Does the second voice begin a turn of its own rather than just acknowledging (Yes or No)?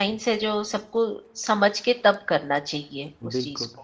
Yes